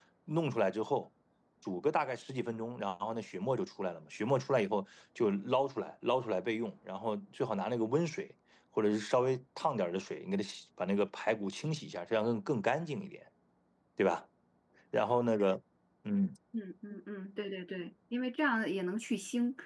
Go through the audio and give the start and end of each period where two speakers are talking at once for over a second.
none

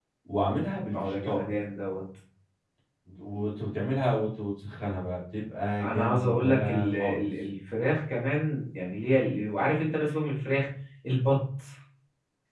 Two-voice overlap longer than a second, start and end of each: 5.8-7.3

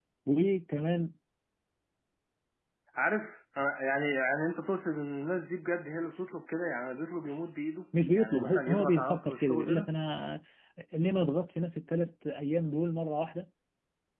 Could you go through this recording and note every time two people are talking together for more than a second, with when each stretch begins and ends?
8.2-9.9

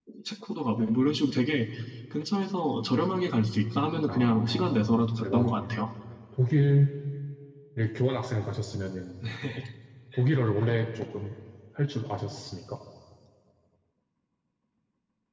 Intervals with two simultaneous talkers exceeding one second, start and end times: 4.1-5.8

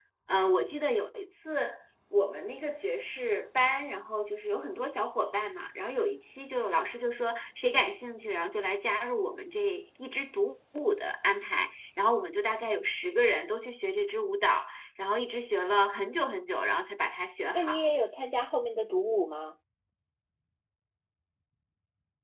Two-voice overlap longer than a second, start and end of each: none

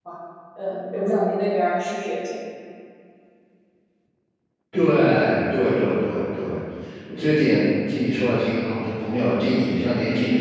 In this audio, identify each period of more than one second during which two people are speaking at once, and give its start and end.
none

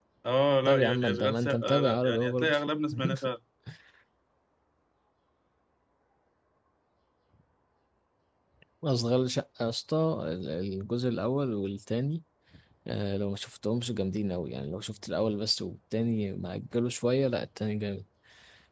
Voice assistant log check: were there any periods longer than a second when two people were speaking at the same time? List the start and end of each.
0.7-2.6

